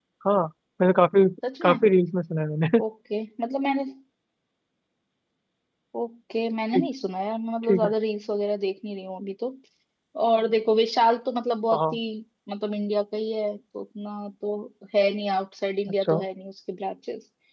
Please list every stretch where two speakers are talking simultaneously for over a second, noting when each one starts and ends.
none

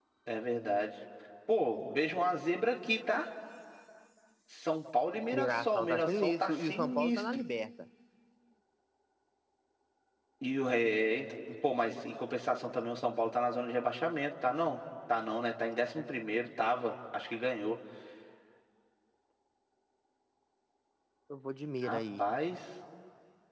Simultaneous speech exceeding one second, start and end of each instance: 5.4-7.4

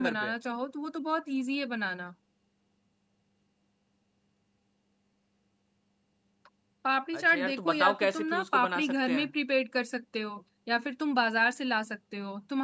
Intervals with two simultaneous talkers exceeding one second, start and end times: 7.1-9.3

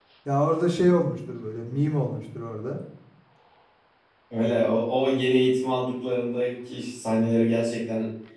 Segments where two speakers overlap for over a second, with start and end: none

